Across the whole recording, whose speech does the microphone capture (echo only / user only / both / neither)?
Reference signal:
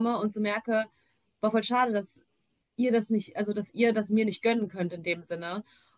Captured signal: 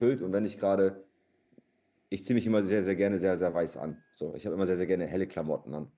user only